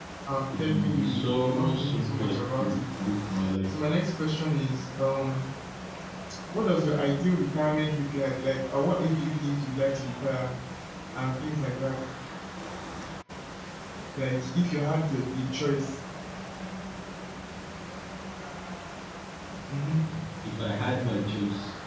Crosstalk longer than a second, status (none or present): present